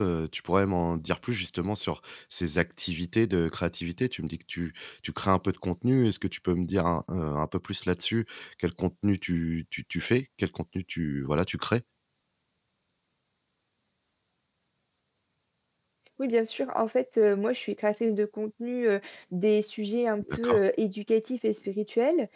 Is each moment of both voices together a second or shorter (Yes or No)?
Yes